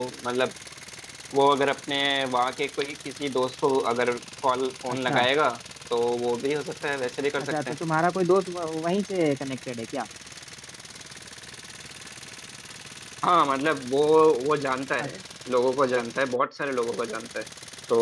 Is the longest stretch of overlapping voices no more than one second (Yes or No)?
Yes